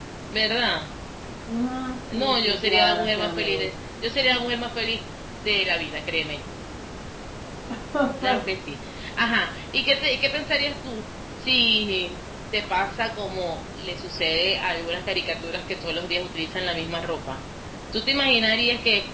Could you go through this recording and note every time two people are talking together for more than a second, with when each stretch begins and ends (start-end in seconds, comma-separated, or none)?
2.1-3.4